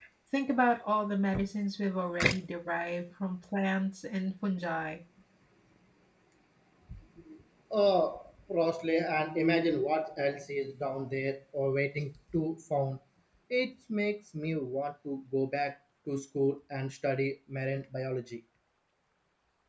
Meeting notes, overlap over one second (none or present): none